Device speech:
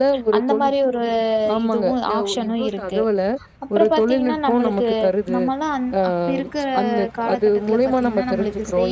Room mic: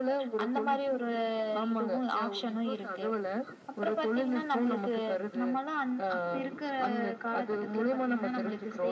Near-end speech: none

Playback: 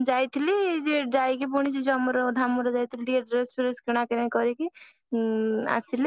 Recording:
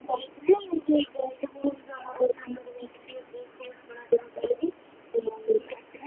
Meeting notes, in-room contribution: none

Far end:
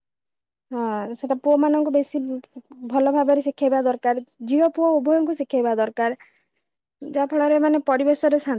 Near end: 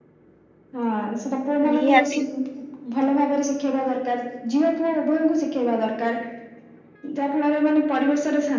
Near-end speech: present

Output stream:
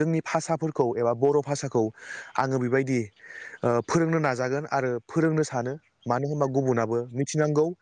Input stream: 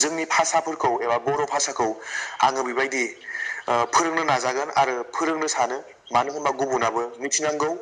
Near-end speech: none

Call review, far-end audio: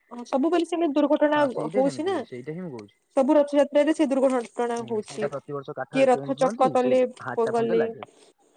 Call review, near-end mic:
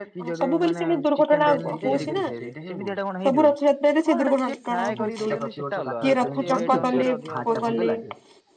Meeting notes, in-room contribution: present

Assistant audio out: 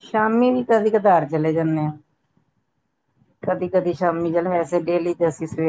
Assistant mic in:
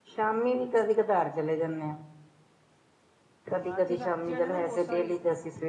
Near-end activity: present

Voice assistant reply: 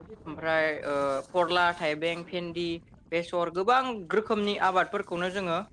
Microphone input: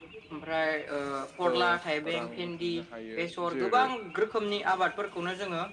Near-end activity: present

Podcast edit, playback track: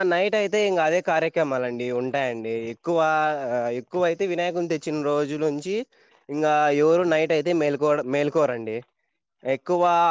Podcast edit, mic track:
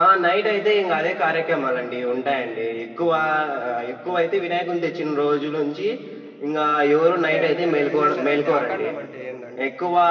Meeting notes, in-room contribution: present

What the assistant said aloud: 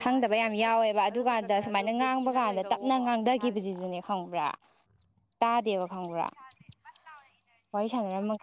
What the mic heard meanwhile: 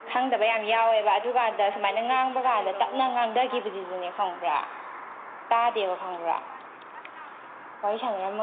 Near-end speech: none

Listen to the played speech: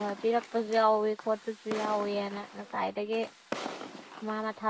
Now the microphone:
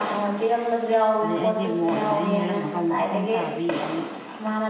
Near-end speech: present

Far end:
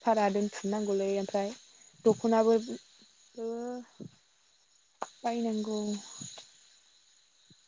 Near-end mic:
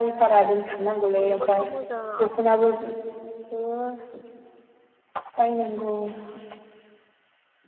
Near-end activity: present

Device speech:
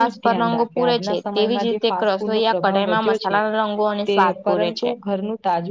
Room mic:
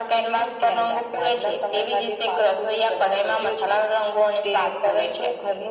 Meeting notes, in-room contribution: none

